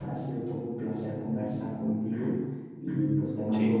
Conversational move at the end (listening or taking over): listening